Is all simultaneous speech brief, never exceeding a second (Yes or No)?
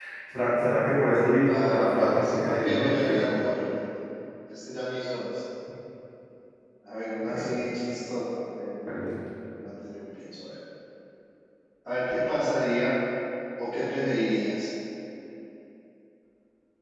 No